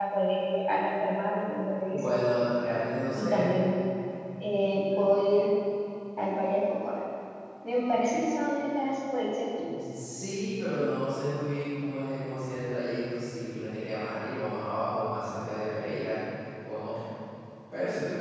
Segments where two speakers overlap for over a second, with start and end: none

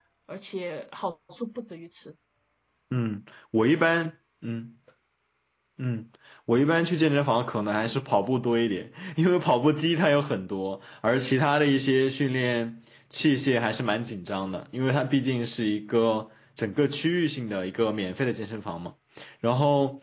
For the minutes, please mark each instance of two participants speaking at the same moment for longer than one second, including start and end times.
none

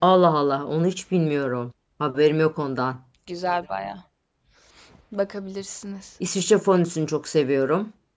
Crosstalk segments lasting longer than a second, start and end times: none

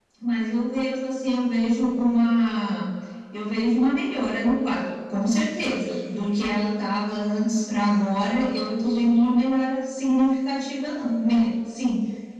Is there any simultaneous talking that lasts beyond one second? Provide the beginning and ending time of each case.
none

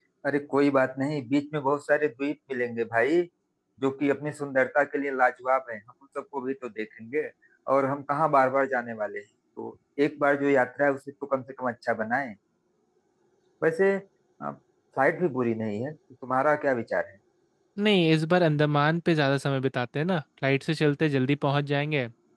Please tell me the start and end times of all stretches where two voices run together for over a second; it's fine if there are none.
none

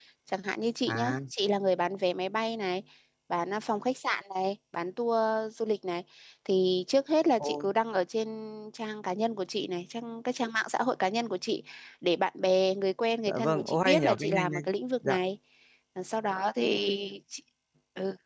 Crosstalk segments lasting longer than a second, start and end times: 13.3-14.6

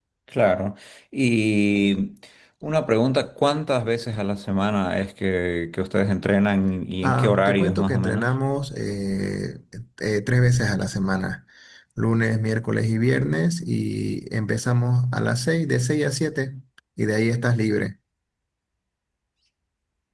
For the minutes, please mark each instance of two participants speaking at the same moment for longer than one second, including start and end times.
7.0-8.3

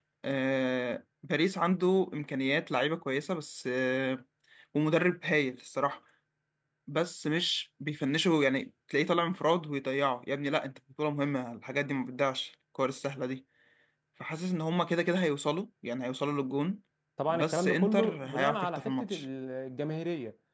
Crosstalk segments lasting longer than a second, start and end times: 17.3-19.2

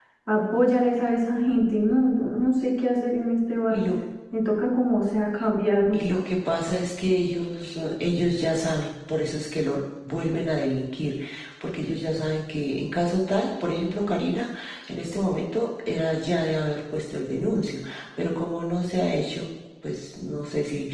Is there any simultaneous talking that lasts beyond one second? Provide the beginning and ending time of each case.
none

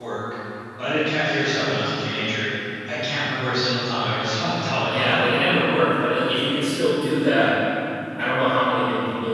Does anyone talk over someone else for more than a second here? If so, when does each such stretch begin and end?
none

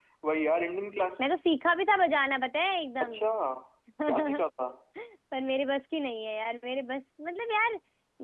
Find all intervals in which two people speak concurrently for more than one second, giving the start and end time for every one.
none

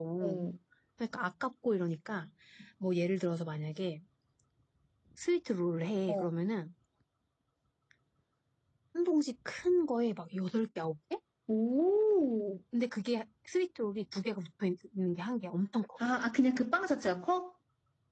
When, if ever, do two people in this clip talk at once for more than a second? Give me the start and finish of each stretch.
none

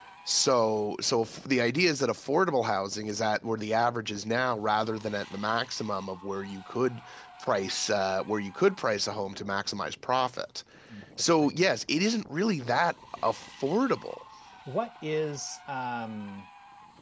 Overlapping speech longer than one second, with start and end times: none

